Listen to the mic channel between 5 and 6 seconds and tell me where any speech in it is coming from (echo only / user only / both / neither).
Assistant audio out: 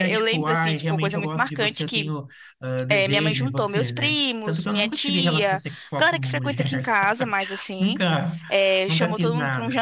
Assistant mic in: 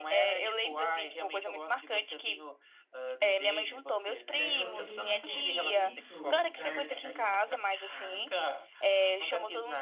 both